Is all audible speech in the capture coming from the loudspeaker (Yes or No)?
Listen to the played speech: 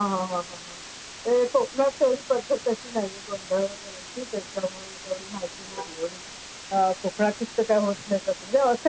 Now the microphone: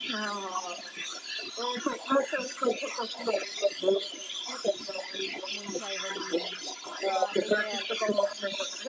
No